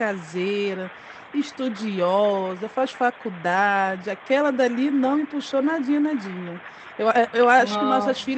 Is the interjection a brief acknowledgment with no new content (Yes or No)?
Yes